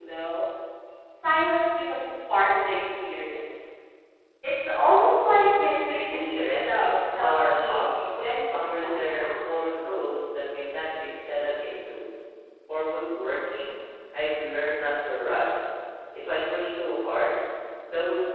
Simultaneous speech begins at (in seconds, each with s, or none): 5.9 s